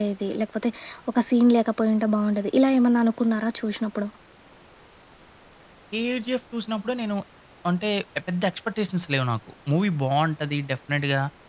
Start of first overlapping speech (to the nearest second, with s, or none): none